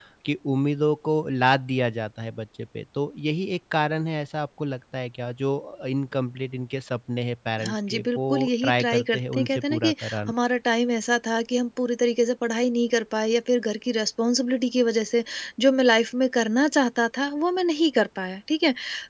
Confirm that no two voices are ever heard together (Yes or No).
No